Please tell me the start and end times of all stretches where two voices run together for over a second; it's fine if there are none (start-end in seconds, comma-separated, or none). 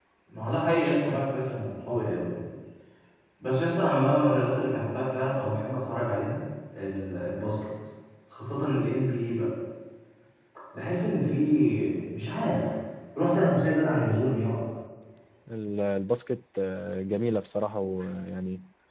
none